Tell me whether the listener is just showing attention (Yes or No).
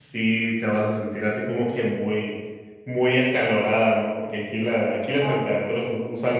Yes